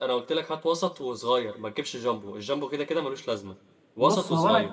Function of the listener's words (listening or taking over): taking over